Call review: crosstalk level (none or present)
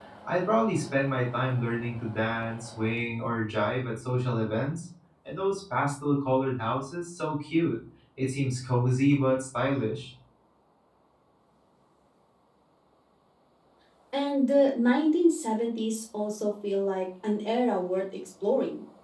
none